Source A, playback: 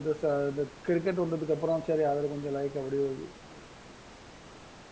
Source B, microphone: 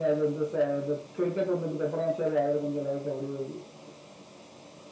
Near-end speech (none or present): none